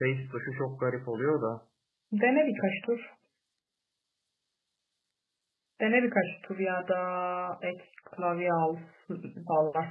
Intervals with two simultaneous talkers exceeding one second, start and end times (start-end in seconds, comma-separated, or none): none